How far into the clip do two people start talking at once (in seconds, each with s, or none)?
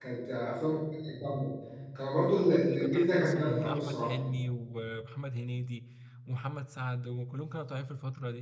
2.4 s